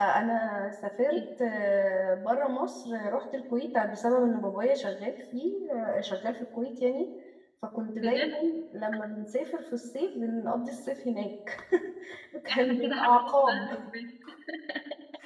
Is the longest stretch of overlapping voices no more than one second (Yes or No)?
No